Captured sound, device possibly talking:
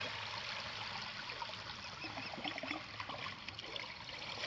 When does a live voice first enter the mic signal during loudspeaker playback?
none

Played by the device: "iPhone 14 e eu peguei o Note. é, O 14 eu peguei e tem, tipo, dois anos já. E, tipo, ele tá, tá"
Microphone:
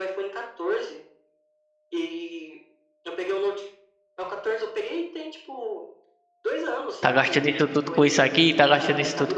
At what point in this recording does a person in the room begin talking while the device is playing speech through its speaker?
7 s

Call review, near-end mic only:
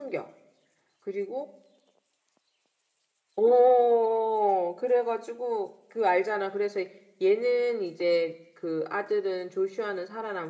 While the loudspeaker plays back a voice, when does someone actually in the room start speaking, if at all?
none

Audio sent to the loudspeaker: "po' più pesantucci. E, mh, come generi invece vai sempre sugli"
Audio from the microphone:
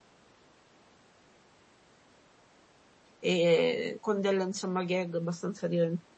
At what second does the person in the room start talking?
3 s

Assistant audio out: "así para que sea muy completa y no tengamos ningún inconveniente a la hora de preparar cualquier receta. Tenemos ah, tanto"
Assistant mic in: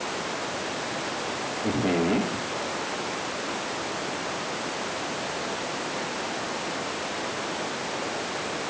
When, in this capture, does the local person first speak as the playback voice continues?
2 s

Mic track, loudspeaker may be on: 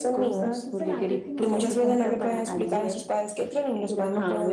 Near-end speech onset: 1 s

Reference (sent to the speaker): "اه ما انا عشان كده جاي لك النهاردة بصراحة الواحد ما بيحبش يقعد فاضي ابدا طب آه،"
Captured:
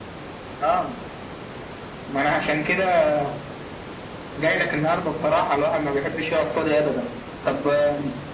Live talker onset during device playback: none

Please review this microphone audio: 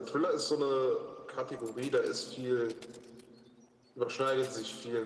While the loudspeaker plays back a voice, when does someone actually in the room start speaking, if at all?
none

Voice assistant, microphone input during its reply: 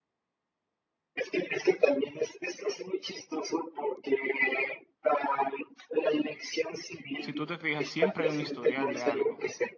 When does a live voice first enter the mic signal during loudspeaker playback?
7 s

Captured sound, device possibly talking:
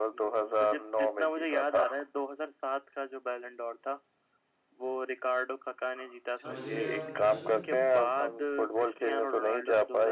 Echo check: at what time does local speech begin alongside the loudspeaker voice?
6 s

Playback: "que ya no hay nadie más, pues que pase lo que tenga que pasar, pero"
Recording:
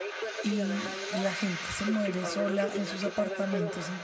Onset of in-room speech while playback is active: 0 s

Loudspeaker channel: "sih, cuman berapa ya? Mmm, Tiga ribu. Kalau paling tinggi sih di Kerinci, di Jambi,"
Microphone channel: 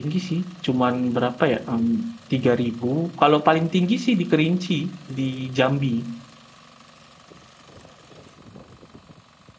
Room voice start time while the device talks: none

